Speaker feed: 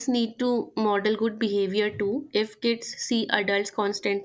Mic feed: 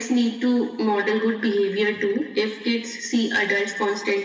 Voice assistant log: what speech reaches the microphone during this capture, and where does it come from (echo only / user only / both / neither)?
echo only